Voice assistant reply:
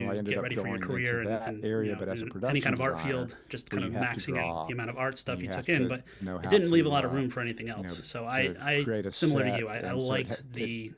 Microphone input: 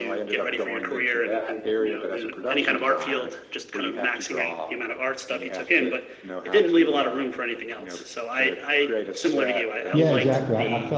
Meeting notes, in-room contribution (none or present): present